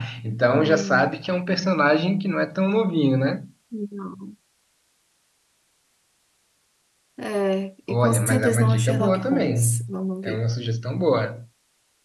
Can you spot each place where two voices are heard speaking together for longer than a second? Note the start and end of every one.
7.9-9.7

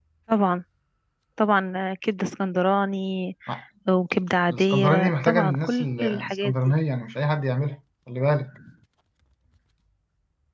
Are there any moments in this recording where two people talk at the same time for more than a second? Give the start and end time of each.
4.5-6.5

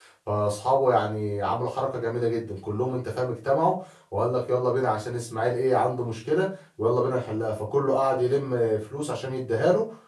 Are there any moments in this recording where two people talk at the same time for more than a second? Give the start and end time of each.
none

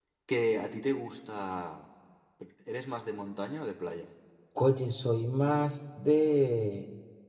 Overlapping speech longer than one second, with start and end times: none

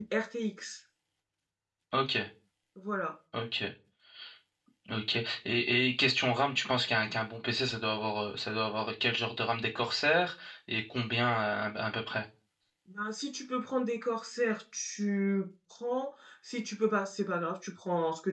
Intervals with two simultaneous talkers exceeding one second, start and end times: none

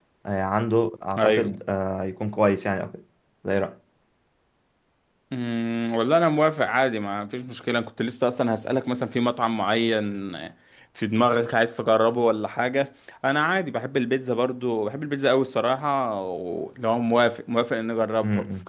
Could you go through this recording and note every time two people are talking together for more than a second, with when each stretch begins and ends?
none

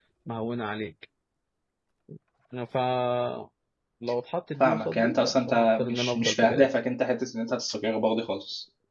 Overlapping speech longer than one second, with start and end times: 4.6-6.7

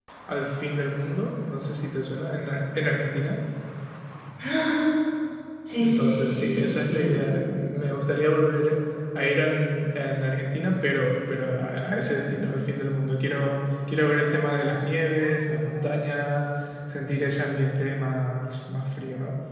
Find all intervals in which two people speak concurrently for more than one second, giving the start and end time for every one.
5.8-7.1

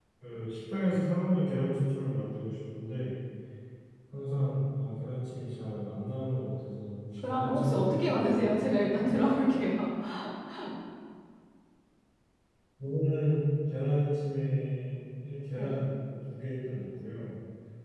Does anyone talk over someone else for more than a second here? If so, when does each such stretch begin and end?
7.3-8.7

